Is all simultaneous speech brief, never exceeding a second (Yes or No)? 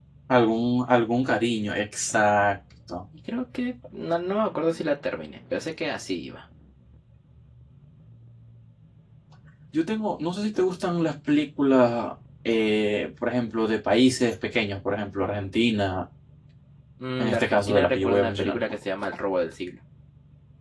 No